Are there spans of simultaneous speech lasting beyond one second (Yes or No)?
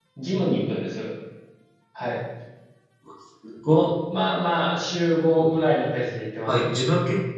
No